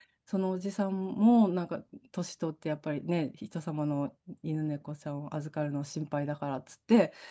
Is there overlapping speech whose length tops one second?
No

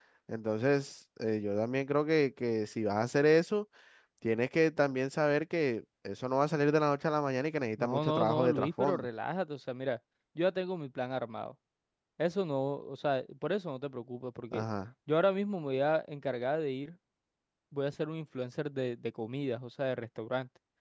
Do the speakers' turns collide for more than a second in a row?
Yes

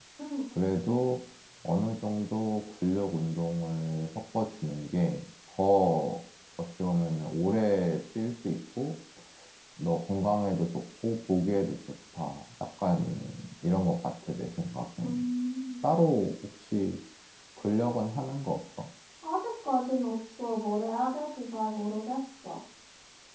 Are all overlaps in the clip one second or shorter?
Yes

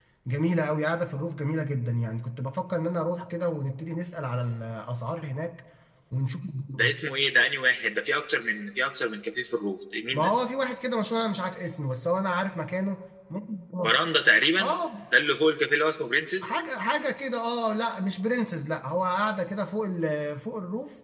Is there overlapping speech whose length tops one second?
No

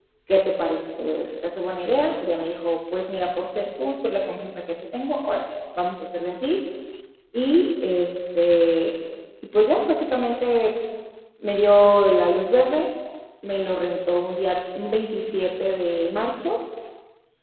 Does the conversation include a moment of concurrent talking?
No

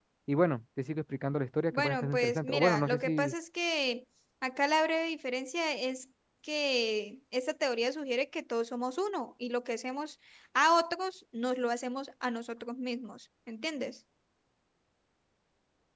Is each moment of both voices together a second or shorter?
No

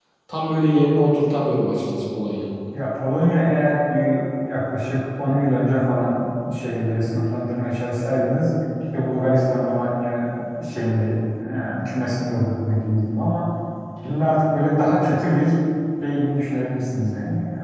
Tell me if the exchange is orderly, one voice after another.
Yes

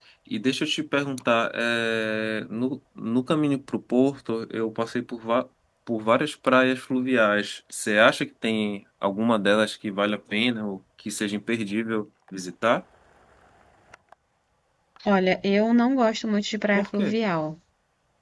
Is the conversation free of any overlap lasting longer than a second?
Yes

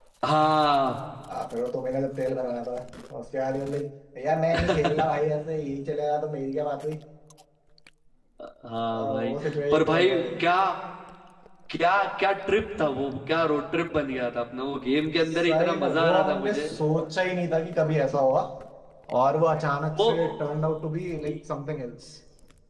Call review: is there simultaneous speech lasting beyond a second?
Yes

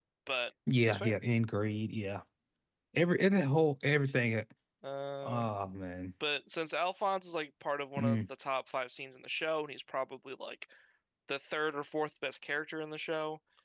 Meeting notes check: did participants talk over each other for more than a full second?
No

